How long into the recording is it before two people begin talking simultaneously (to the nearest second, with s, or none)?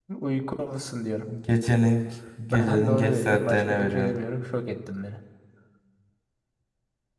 3 s